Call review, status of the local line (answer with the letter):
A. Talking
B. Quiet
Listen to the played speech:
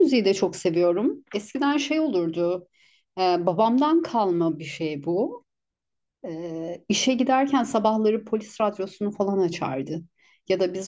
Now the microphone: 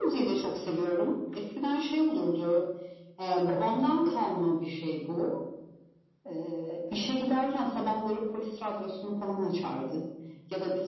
B